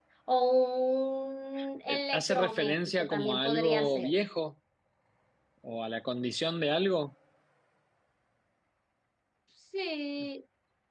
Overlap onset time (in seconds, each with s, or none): 1.9 s